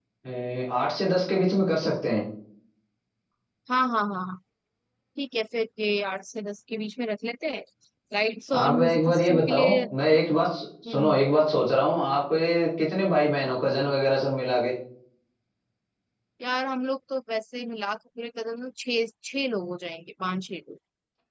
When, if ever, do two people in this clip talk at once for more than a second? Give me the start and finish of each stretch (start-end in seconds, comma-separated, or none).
8.5-9.8